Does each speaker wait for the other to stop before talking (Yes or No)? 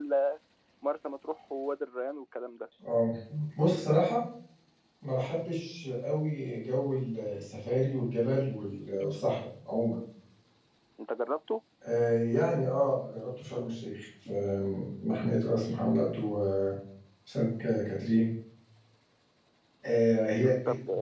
Yes